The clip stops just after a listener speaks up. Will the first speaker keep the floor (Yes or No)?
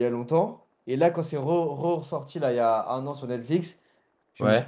Yes